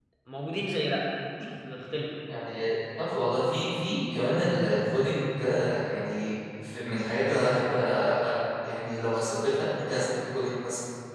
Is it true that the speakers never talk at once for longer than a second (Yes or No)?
Yes